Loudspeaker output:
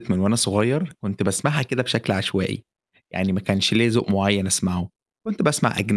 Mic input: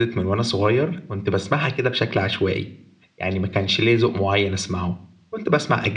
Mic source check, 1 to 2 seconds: echo only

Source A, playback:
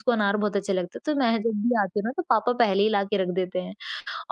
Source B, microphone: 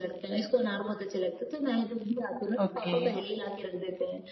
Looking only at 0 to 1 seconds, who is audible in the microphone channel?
echo only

